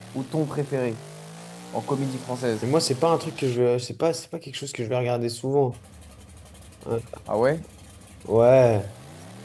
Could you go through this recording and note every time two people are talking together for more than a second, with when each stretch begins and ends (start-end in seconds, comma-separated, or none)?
none